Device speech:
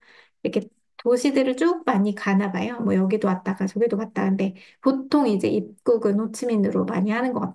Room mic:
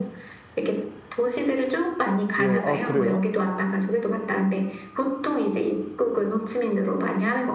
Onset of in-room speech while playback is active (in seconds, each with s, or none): 2.4 s